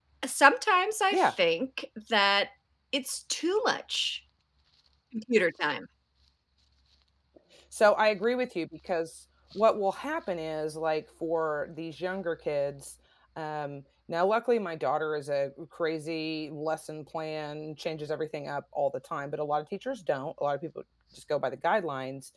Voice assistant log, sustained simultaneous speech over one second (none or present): none